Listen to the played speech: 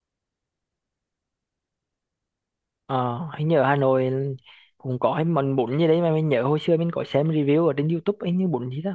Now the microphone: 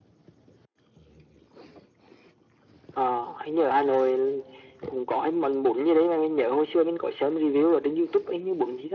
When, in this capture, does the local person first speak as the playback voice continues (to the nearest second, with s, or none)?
none